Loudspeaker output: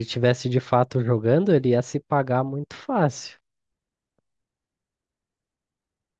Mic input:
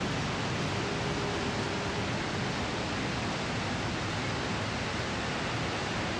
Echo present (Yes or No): No